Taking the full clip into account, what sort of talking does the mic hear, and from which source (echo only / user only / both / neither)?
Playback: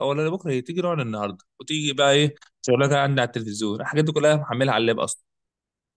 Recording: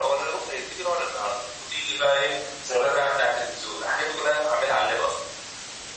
echo only